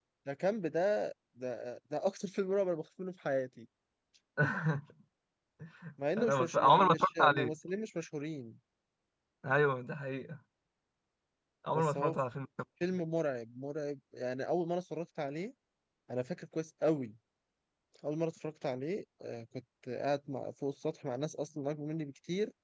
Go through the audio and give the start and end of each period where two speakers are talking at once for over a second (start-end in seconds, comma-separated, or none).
6.2-7.6